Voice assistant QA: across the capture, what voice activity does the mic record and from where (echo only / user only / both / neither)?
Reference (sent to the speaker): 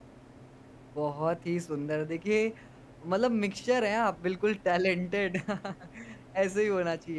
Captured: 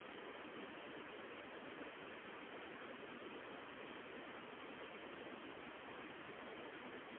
neither